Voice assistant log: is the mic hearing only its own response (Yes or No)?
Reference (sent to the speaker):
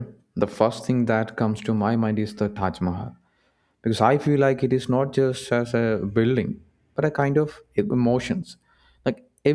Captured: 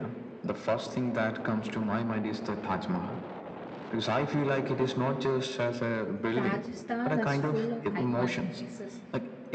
No